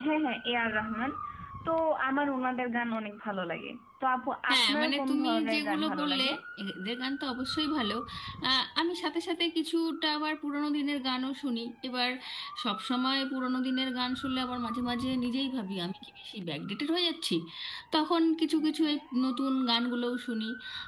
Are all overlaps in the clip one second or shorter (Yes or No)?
No